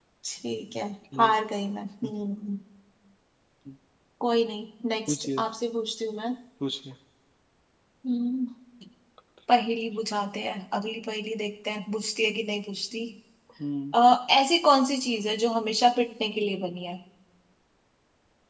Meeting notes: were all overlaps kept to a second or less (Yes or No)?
Yes